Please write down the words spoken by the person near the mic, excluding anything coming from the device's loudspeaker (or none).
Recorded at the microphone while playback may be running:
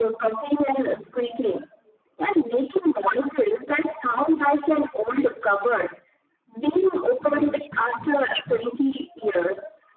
moral disinformation.